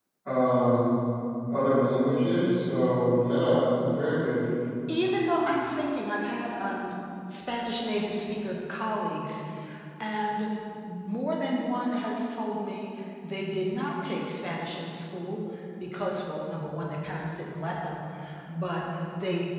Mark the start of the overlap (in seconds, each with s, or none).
none